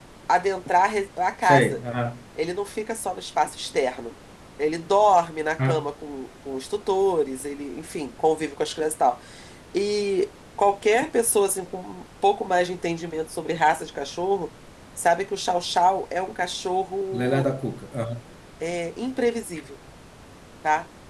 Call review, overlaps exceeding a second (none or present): none